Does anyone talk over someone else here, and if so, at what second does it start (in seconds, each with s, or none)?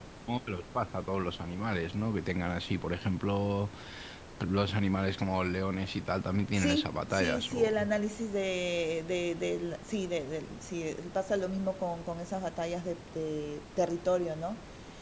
6.5 s